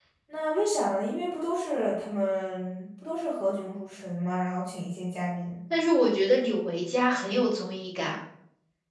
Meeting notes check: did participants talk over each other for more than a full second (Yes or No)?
No